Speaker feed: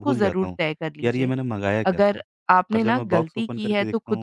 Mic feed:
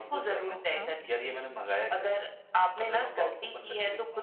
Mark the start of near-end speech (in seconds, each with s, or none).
0.5 s